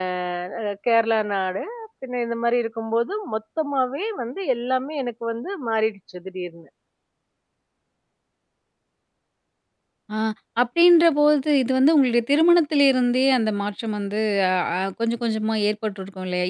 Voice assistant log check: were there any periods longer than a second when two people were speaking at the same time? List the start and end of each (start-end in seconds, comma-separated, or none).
none